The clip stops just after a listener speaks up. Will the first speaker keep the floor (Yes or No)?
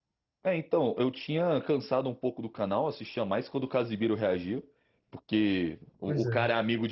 Yes